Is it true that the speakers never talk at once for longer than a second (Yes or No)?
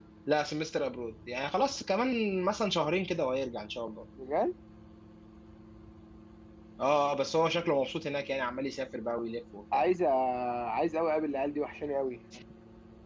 Yes